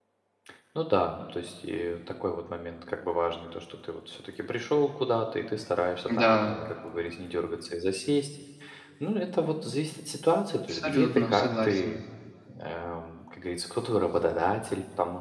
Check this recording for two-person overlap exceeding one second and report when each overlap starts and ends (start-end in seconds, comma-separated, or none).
10.7-12.0